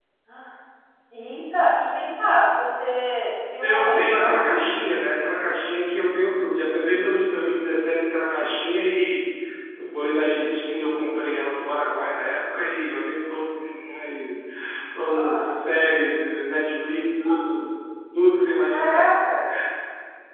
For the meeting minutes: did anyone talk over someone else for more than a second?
Yes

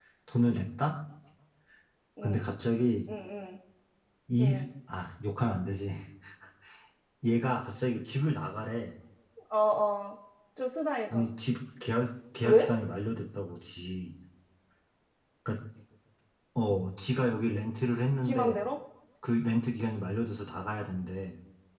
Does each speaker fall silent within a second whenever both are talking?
Yes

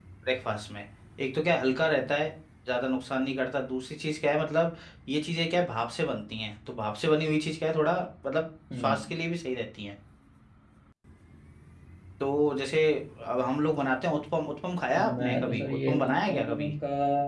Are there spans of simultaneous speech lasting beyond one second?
Yes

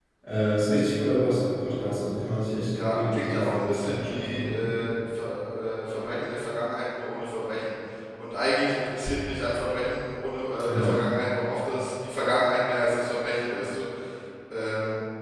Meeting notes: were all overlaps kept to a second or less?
No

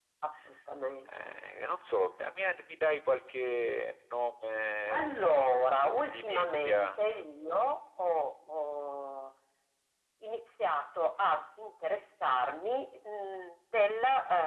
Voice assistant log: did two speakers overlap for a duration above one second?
Yes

